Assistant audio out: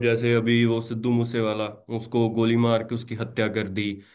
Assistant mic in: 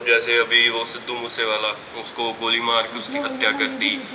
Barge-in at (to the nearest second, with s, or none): 3 s